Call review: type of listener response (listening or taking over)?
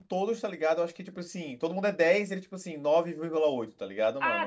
taking over